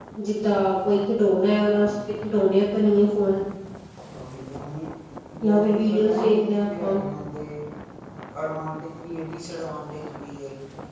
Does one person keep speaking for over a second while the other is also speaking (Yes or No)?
Yes